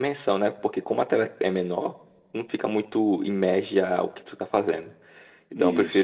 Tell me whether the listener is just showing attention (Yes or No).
Yes